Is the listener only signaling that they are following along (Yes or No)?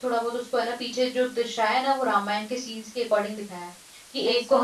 Yes